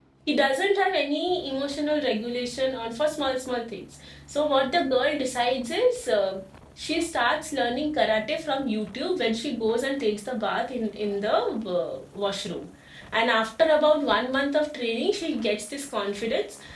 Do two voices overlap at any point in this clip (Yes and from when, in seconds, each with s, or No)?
No